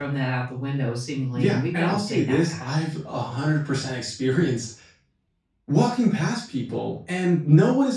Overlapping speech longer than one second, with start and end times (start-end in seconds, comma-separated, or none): 1.4-2.7